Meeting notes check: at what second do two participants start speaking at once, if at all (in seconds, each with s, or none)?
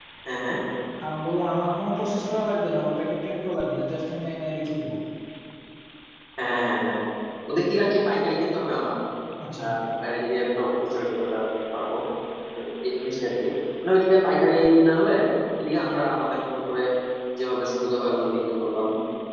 none